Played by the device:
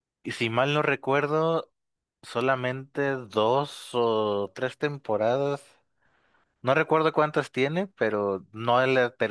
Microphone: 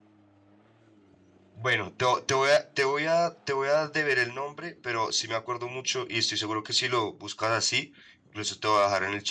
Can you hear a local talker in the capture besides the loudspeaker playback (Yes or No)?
Yes